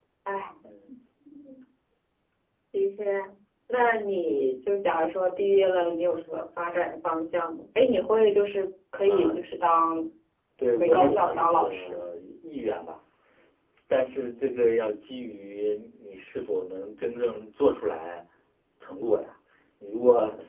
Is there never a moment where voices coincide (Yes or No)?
No